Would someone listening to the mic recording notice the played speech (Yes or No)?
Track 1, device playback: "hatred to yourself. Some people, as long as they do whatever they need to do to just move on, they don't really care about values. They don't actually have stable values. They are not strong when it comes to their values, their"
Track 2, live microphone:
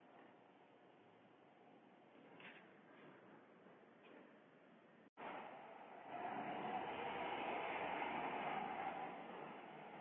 No